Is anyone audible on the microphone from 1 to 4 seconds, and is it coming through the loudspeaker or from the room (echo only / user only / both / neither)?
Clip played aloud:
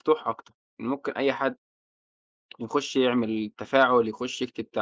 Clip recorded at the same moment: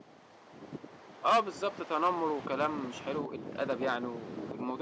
user only